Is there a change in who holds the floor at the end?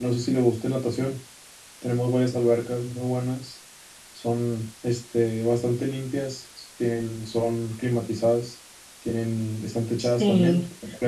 Yes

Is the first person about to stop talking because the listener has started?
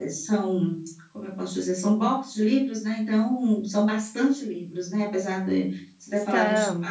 No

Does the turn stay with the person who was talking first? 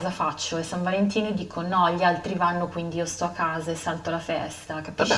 No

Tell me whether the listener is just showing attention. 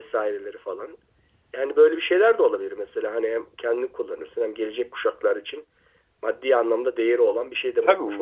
No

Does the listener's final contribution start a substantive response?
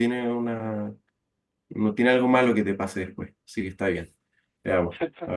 No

